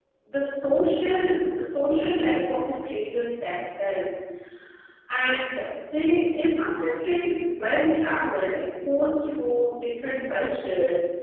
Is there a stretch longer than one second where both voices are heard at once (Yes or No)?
No